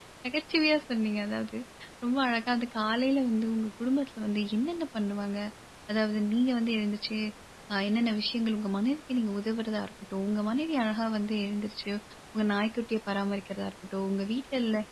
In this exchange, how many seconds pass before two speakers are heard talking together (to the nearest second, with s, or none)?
none